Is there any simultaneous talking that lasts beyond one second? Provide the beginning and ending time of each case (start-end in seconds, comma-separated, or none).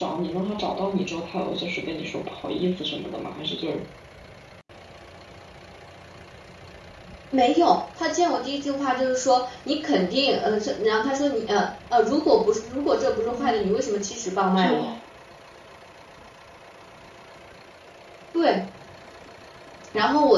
none